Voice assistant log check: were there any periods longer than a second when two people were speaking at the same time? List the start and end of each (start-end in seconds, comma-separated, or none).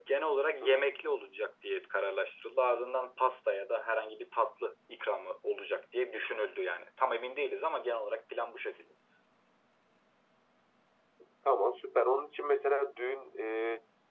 none